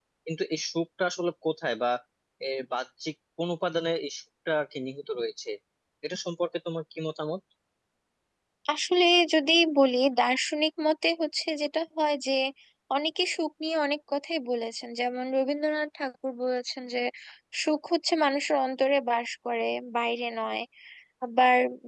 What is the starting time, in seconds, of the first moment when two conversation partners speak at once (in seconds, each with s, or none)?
none